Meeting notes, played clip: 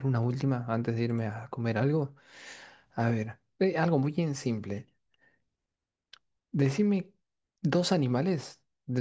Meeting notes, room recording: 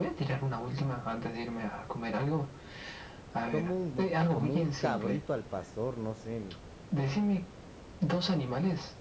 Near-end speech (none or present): present